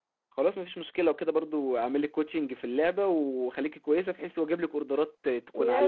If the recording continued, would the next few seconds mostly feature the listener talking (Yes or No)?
Yes